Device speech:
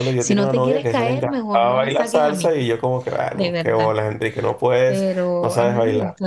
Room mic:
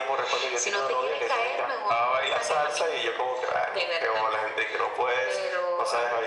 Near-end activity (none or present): none